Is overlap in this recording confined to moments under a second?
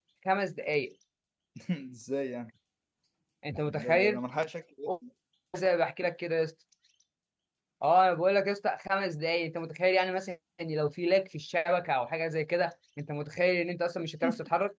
Yes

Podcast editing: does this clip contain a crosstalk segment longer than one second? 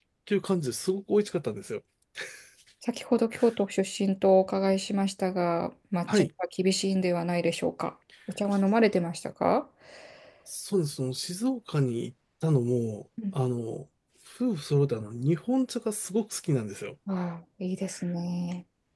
No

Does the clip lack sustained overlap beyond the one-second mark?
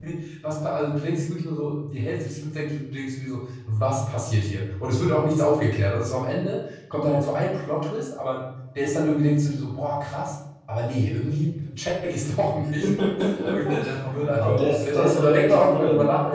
No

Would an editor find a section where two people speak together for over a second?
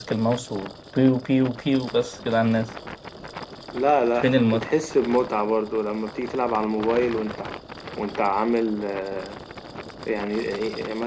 No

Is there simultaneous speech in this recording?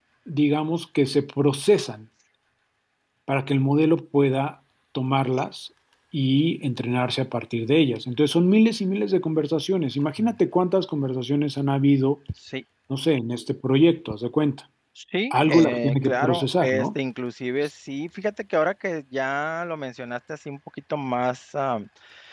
Yes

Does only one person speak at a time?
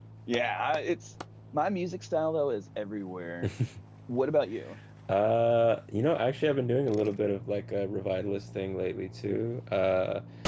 Yes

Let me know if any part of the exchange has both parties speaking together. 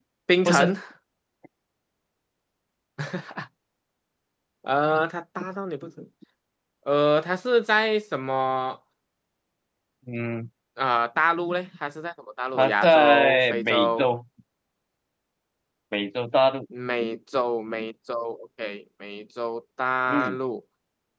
Yes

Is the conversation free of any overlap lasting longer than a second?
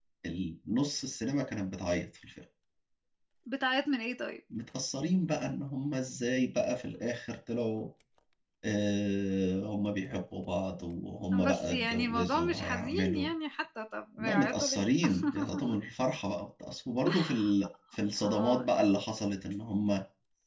No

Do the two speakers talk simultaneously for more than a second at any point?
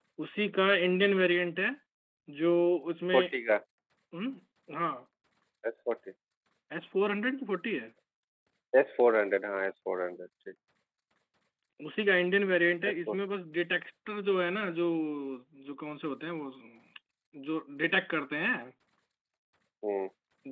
No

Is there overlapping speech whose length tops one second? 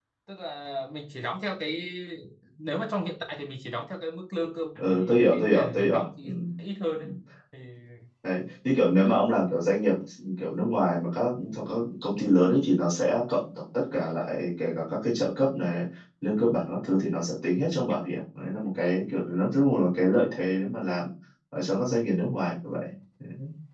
Yes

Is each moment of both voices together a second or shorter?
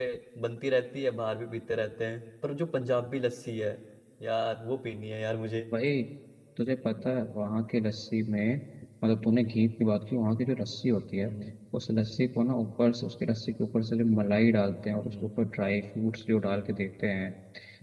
Yes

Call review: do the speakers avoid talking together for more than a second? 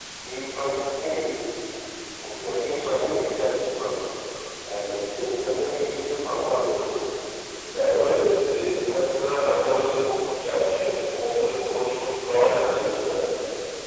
Yes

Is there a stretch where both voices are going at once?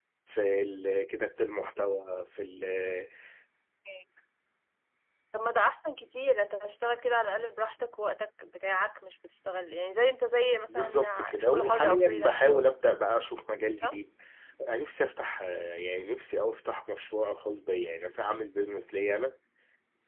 Yes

